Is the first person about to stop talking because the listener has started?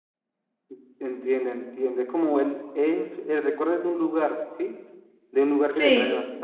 No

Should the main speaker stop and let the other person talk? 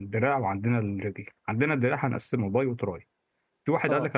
No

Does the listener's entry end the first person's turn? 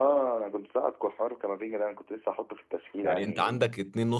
Yes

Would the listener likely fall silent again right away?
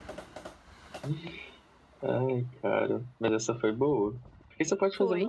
Yes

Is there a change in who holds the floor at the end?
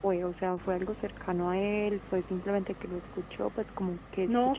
Yes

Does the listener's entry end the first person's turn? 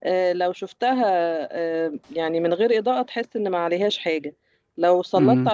No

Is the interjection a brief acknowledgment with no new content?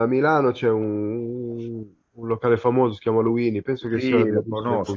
No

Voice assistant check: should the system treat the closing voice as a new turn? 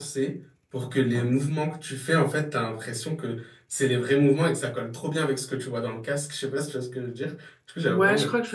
Yes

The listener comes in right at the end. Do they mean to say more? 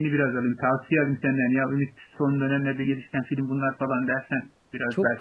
Yes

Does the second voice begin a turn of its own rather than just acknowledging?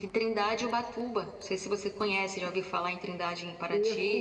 Yes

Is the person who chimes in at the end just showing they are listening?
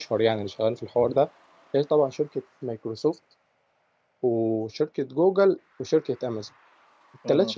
Yes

